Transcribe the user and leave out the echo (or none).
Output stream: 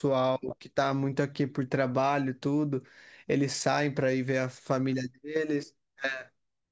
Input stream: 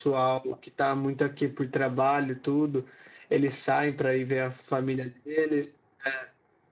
none